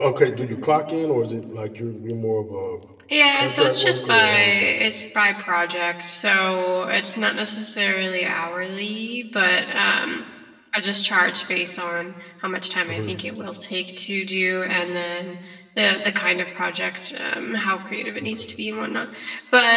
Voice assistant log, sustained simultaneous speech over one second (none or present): present